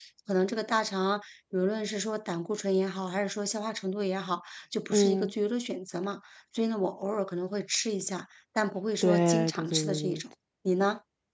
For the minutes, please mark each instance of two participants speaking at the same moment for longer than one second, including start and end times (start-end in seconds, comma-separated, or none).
9.0-10.2